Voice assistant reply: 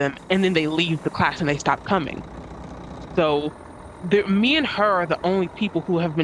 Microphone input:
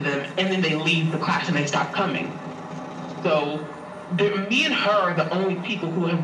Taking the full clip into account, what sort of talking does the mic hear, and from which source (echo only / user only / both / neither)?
echo only